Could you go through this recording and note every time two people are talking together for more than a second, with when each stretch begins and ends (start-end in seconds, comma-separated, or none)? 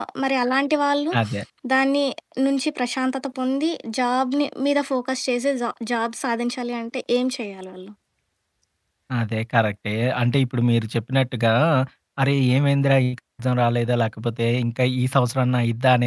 none